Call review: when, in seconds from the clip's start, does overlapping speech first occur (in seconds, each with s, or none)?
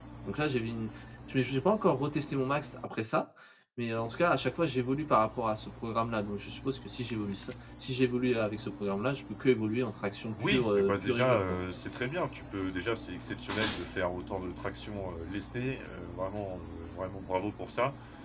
10.3 s